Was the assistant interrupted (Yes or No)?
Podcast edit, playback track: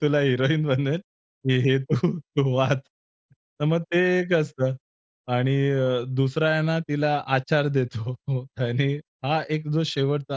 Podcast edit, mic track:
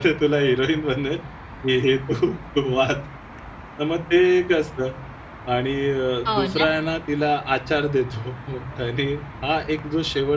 Yes